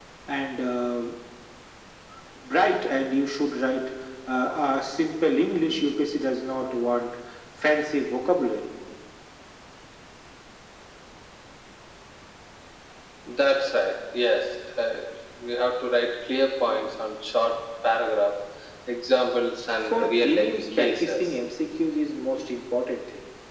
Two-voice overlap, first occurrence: 20 s

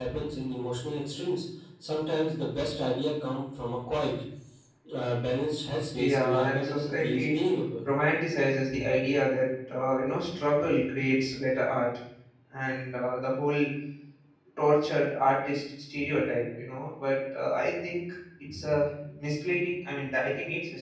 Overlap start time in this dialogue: 6 s

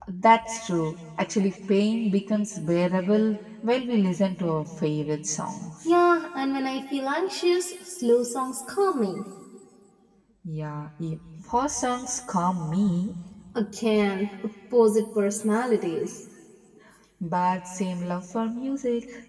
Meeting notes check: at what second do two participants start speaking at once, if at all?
none

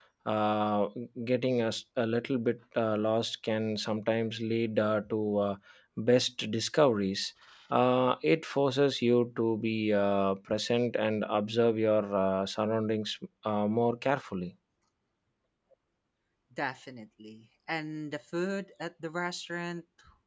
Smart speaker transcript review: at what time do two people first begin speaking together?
none

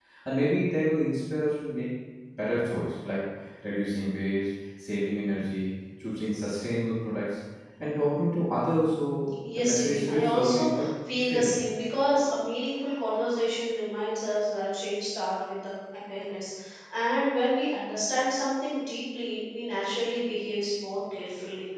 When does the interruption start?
9 s

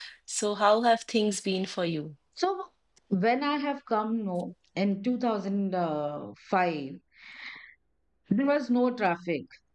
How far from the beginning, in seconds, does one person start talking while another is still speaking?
none

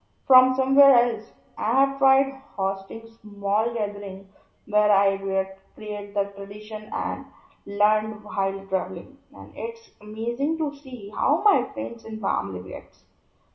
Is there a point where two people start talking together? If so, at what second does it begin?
none

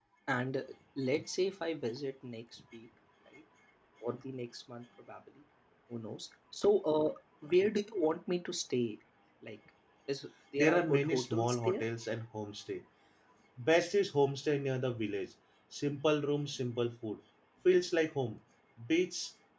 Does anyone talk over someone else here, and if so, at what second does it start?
11 s

